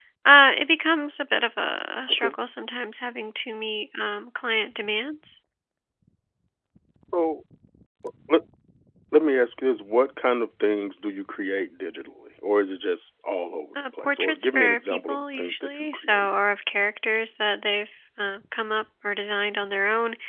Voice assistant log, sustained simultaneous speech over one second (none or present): present